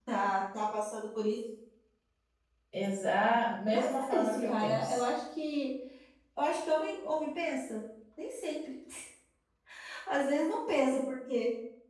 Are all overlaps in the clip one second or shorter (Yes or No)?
No